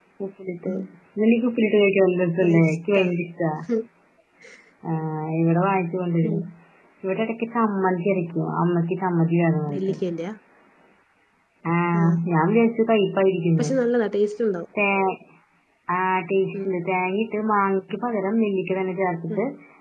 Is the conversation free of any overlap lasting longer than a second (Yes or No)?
Yes